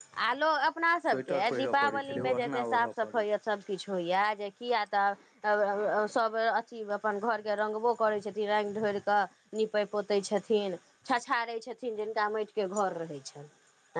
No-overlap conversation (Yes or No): No